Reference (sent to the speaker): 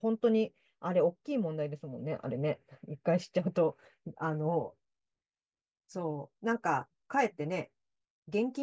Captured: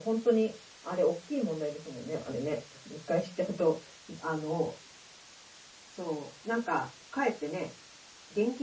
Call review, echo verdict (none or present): present